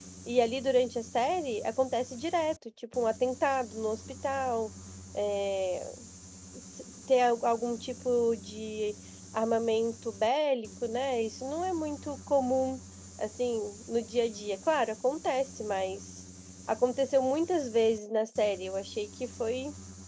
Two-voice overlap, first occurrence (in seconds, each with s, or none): none